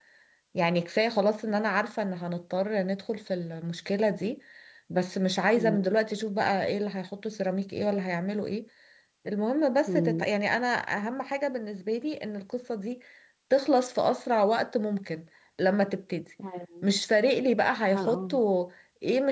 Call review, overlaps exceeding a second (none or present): none